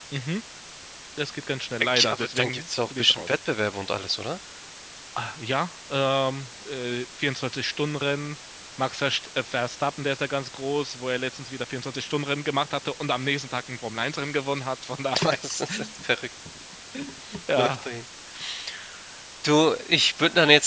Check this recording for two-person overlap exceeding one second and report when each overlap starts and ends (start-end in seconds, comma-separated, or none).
1.8-3.4